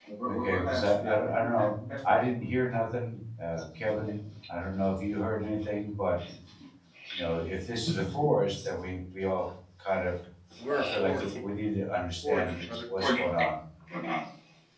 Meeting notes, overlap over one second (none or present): present